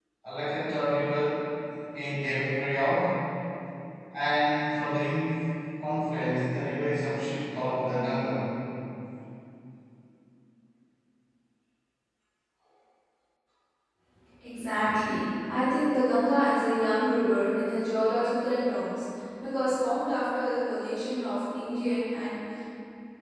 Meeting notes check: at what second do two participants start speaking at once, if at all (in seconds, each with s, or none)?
none